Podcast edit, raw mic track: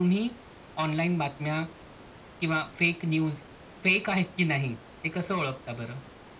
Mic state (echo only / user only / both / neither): echo only